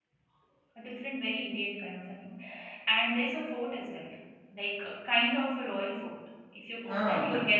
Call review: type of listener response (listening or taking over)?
taking over